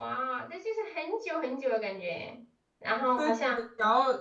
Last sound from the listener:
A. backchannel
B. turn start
B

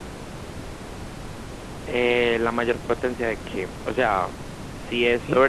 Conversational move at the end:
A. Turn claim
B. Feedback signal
B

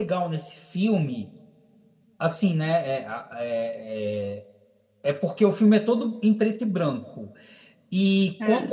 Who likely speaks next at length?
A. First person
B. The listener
A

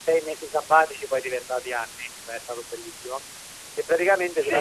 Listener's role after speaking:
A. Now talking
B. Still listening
A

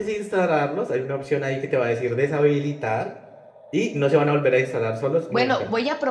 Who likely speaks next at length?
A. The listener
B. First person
A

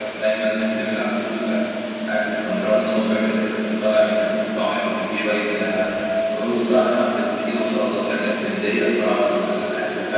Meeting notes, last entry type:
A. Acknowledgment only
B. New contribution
B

